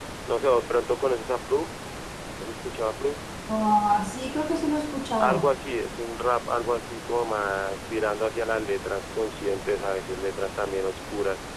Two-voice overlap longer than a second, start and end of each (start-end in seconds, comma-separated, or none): none